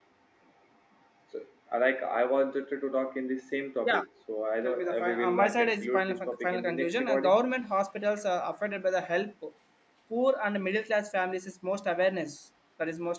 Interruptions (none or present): present